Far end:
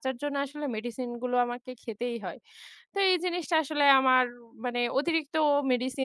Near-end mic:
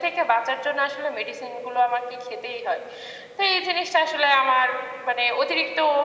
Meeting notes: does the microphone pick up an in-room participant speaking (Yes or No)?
No